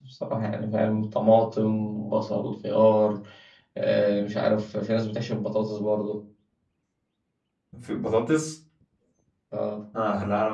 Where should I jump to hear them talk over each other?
none

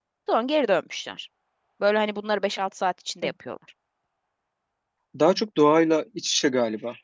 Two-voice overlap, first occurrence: none

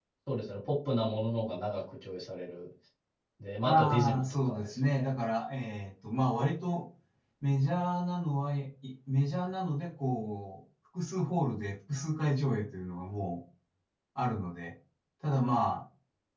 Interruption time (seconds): 3.6 s

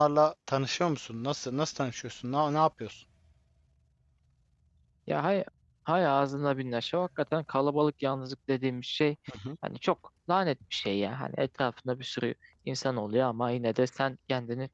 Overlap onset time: none

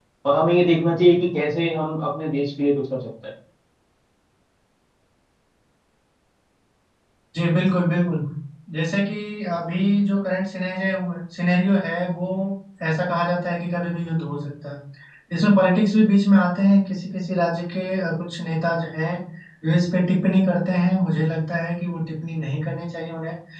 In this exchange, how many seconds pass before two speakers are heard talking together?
none

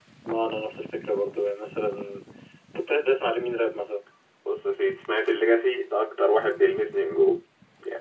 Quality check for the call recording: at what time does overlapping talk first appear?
none

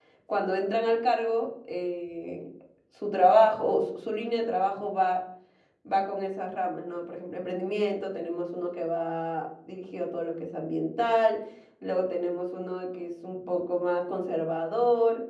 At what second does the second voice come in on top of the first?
none

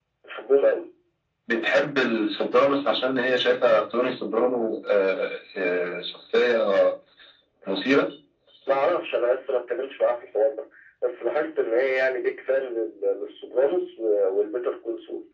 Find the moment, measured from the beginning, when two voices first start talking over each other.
none

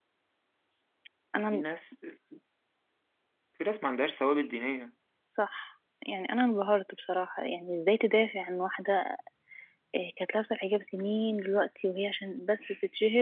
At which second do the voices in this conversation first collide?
none

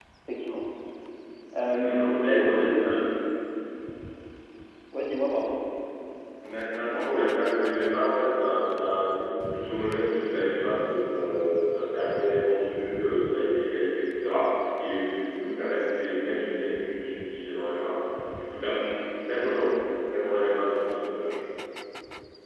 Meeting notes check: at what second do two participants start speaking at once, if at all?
1.6 s

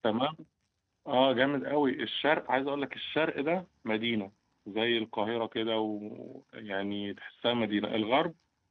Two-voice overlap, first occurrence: none

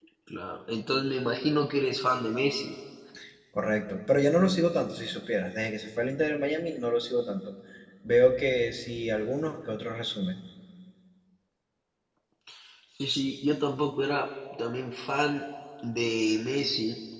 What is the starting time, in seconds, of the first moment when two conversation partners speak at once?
none

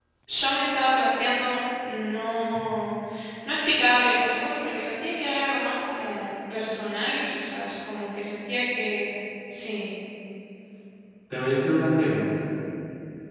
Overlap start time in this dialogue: none

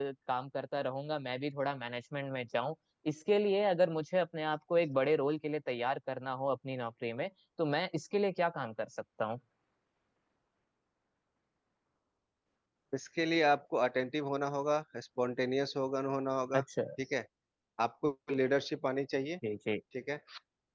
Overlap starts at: none

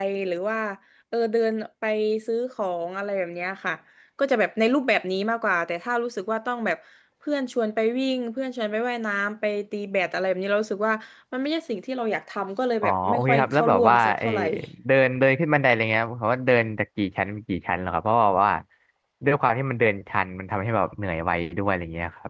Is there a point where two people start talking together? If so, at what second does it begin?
12.8 s

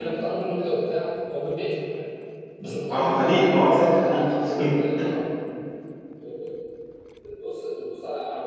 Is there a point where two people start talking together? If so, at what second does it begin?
2.9 s

